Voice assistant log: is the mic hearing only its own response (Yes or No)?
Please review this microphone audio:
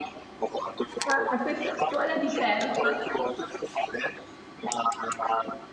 No